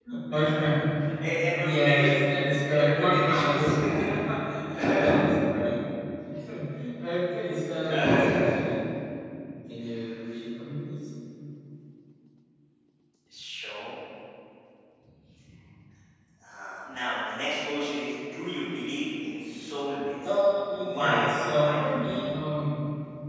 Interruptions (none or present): present